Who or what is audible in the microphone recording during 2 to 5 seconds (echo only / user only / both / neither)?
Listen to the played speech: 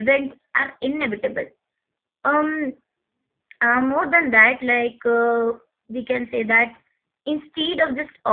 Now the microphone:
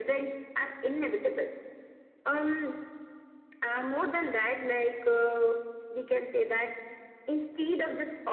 echo only